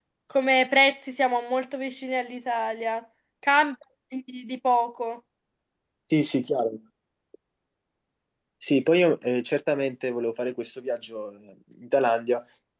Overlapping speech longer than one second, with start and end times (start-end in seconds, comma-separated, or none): none